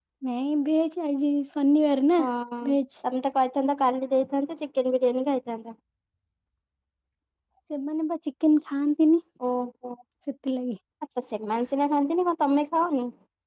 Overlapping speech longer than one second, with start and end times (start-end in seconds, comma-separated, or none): none